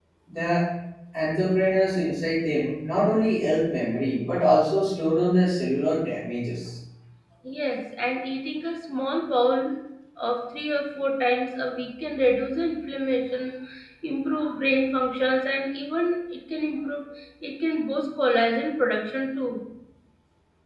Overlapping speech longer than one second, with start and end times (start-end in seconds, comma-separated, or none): none